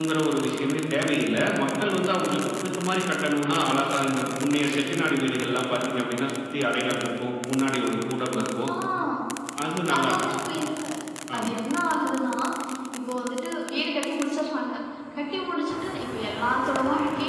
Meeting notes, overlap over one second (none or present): none